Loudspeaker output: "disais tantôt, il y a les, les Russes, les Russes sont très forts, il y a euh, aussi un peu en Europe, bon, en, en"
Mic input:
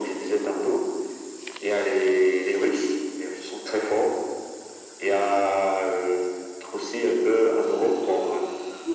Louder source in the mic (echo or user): echo